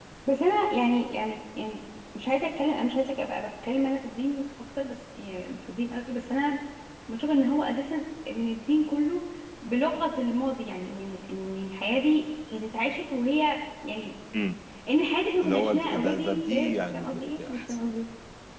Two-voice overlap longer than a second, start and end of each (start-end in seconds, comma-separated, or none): 15.4-17.8